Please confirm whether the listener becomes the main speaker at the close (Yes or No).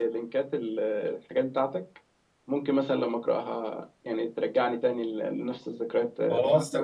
Yes